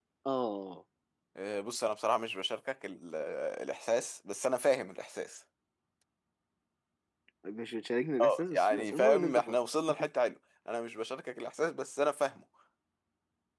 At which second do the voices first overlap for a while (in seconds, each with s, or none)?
8.2 s